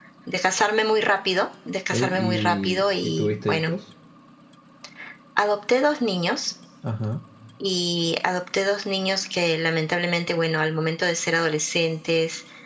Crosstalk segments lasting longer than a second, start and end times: 1.9-3.7

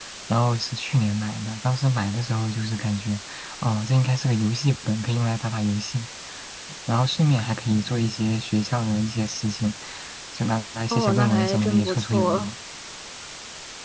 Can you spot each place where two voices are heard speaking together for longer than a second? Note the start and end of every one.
10.9-12.5

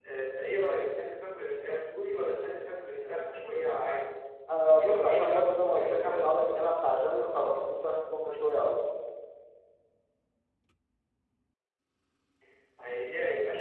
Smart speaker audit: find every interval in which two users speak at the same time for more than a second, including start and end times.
4.8-6.7

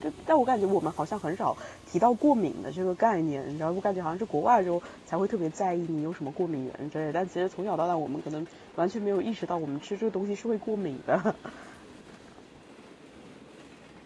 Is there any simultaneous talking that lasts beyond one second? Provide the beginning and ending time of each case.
none

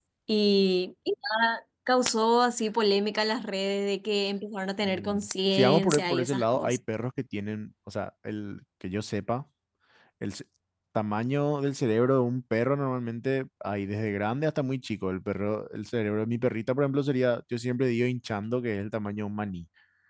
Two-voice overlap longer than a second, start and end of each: 4.8-6.8

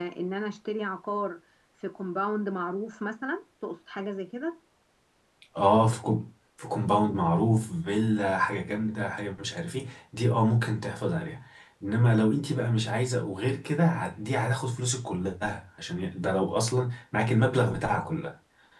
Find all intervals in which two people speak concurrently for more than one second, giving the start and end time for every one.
none

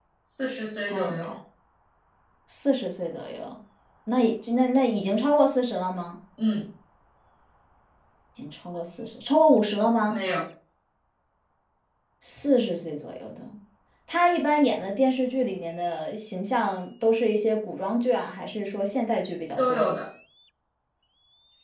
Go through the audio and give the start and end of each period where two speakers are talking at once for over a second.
none

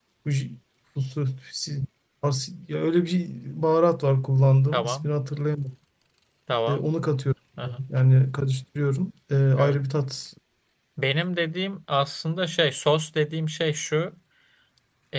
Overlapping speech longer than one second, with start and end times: none

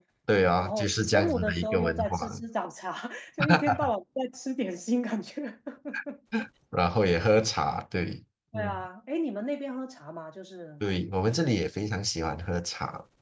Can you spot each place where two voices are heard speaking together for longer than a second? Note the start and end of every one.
0.5-2.2

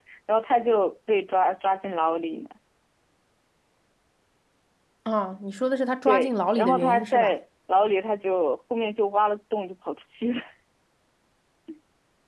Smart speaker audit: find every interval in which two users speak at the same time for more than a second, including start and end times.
6.1-7.4

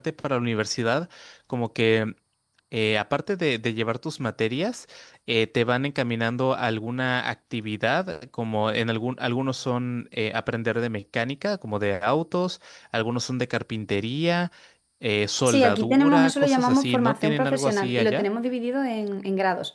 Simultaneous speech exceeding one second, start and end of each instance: 15.5-18.3

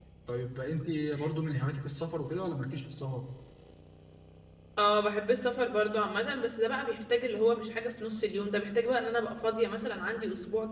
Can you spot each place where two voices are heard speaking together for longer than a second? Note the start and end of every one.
none

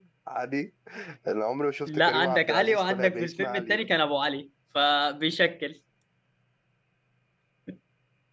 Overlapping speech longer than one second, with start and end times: 1.9-3.9

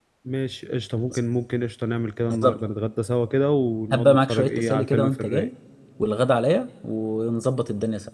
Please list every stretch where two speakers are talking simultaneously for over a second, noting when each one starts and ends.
3.9-5.5

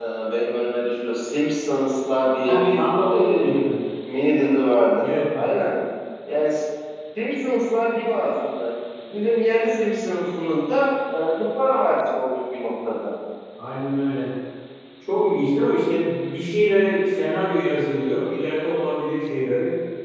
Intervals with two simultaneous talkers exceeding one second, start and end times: 2.4-3.7

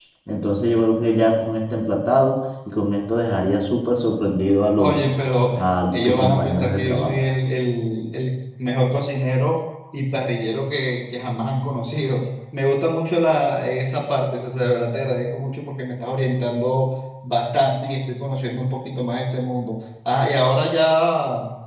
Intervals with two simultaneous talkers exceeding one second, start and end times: 5.9-7.2

